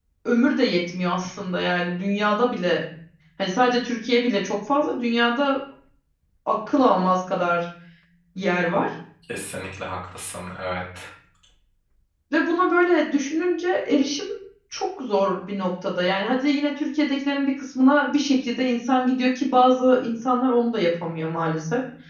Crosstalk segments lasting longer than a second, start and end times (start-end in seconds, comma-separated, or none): none